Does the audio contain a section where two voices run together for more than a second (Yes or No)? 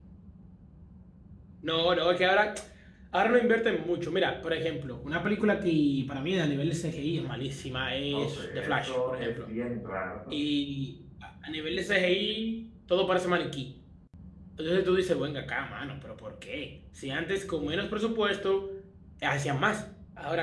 Yes